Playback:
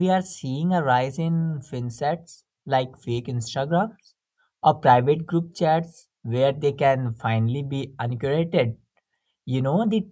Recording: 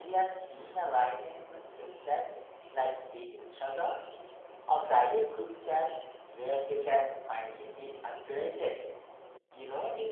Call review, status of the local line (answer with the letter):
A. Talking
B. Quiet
B